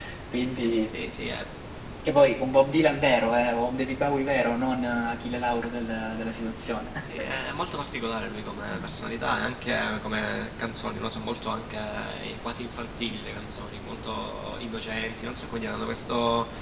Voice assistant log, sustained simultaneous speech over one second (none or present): none